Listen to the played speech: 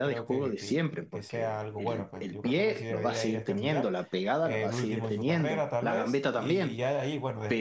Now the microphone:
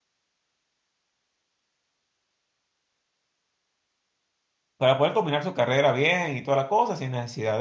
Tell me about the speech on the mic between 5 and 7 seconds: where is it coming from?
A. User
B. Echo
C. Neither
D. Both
A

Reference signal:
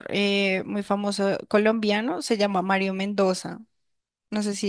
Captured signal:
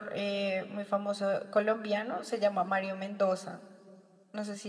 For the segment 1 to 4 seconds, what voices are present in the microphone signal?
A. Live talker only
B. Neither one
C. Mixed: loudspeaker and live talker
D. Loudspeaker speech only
D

